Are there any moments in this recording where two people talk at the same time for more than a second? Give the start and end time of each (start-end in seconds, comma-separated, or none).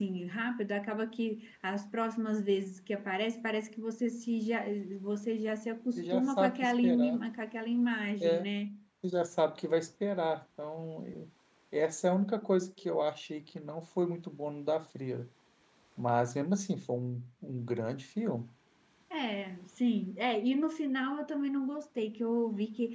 6.0-7.2